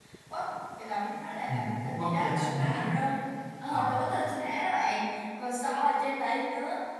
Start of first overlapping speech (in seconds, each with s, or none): 1.5 s